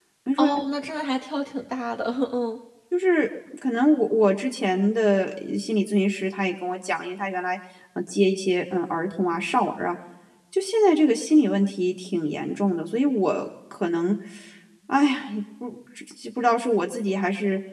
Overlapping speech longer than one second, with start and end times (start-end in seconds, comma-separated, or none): none